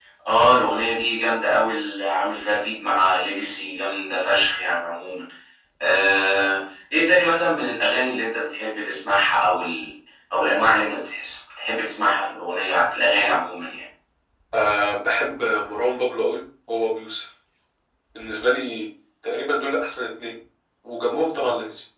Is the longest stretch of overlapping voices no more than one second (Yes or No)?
Yes